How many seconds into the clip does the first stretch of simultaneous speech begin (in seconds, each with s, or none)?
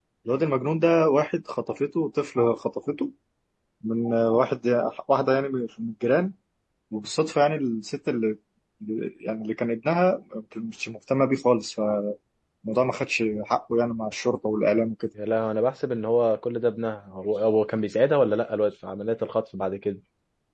none